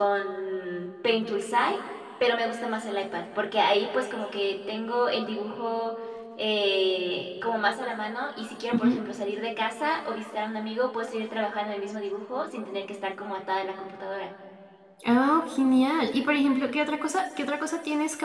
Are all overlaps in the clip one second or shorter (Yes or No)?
Yes